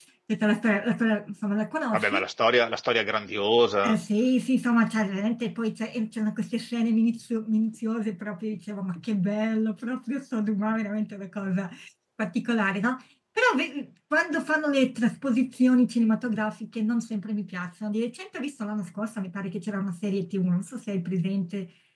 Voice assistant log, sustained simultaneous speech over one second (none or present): none